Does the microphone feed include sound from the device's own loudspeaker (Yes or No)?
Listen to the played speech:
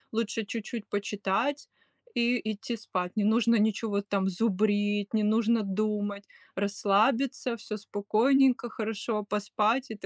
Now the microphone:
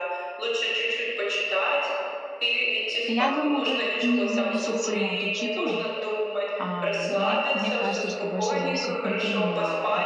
Yes